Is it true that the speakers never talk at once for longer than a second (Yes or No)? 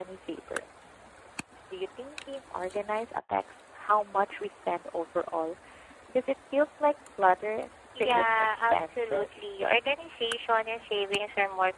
No